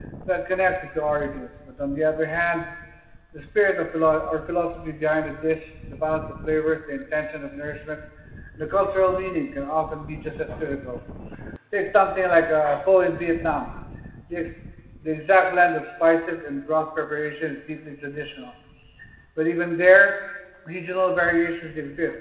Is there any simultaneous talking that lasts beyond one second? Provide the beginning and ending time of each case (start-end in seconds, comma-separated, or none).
none